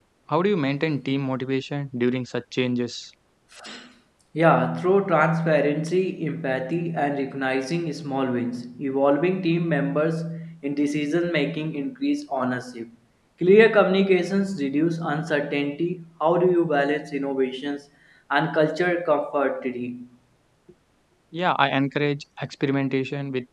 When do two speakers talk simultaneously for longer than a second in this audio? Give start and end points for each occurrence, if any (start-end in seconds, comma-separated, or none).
none